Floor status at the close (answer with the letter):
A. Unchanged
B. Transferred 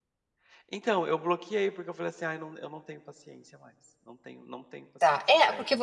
B